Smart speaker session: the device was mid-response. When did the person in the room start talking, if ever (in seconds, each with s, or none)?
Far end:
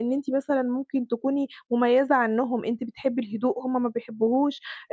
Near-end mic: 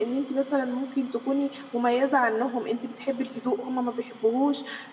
none